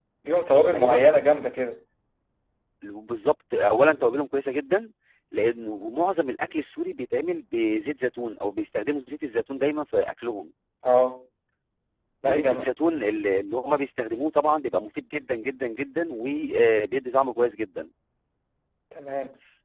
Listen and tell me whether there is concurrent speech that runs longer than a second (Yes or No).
No